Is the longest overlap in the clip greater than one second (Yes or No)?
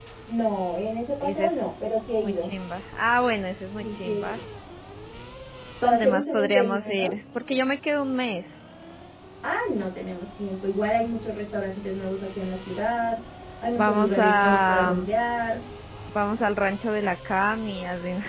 Yes